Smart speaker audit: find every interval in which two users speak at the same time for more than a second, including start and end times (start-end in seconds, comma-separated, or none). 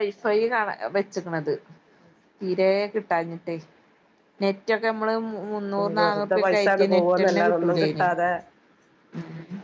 6.0-8.1